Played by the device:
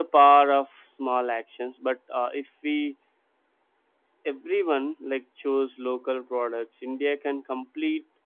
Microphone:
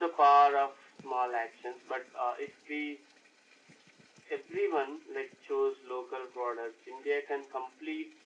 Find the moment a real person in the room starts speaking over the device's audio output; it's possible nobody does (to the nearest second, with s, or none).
none